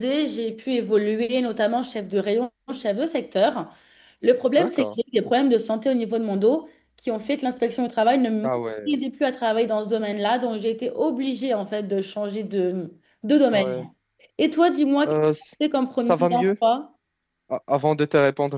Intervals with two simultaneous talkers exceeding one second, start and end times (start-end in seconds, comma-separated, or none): none